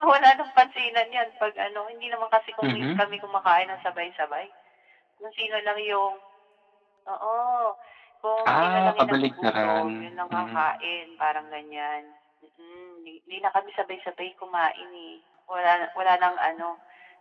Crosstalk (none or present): present